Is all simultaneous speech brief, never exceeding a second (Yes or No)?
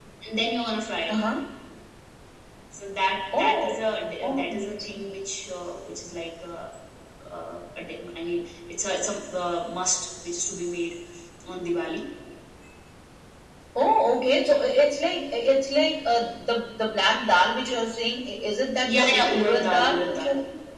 No